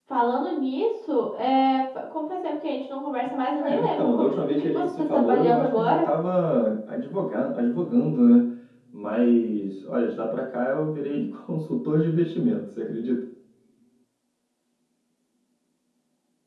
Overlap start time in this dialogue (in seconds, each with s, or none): 3.6 s